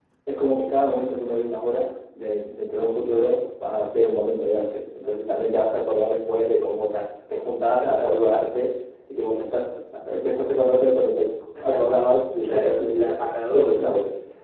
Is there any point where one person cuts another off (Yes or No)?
Yes